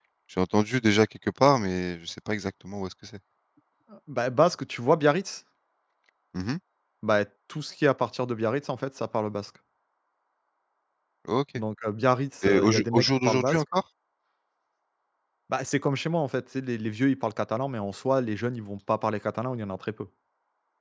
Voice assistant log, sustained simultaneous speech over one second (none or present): present